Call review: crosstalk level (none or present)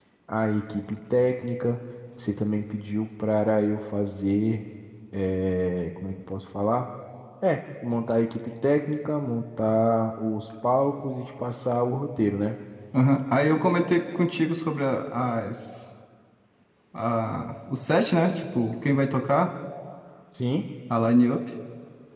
none